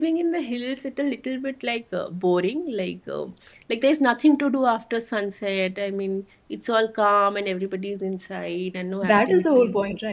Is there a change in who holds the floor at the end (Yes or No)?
Yes